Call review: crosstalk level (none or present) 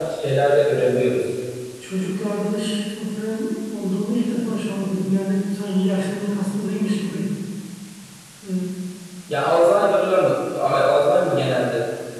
none